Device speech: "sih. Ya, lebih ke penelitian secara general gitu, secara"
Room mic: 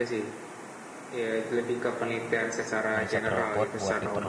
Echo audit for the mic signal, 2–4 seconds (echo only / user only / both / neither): both